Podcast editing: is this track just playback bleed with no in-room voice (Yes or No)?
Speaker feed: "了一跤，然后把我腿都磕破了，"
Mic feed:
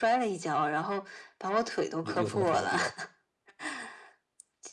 No